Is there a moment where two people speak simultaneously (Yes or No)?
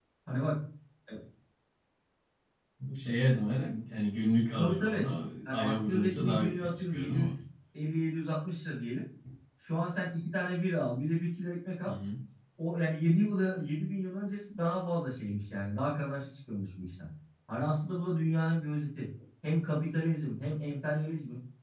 Yes